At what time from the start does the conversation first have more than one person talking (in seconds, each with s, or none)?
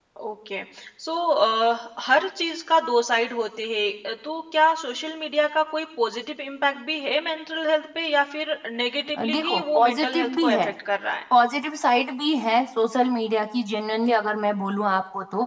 9.2 s